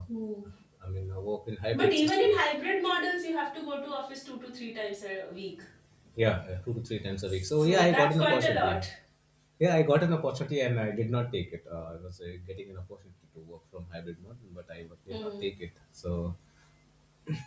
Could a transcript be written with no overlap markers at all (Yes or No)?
No